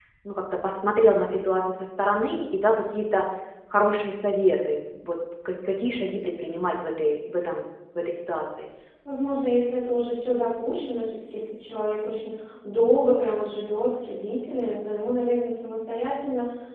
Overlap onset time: none

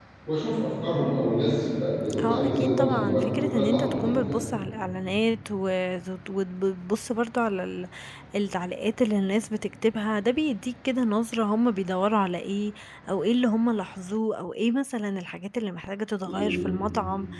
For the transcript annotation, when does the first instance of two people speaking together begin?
2.2 s

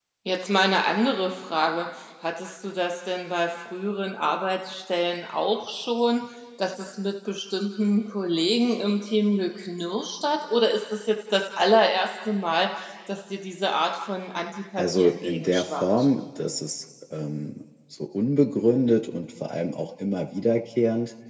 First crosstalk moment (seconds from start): 14.8 s

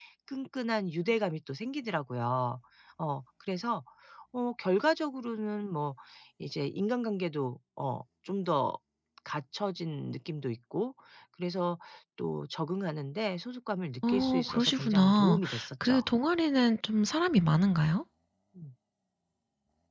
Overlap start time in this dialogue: 14.0 s

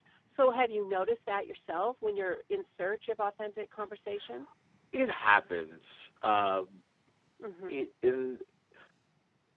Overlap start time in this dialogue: none

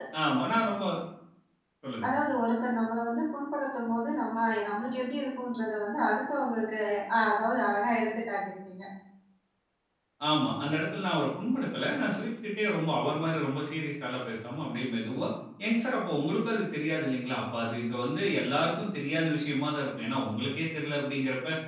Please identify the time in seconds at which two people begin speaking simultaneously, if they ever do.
none

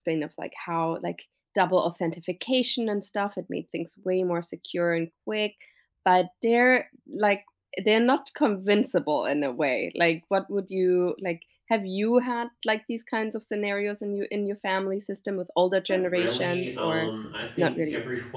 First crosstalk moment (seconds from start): 15.9 s

